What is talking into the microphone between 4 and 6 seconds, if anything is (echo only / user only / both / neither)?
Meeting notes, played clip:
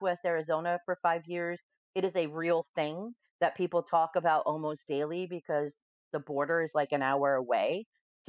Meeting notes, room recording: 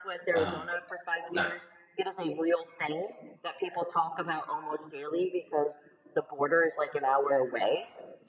echo only